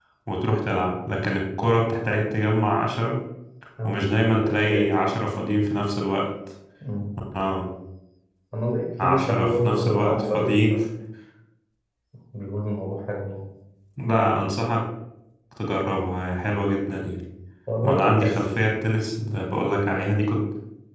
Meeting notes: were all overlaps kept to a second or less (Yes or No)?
No